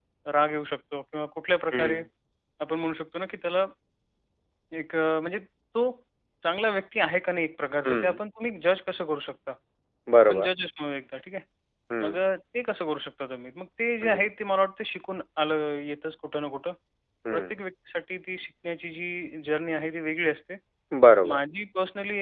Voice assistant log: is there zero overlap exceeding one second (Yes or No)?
Yes